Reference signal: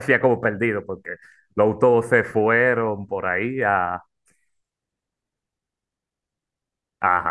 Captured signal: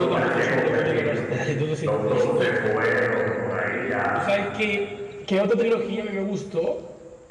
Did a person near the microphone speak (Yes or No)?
Yes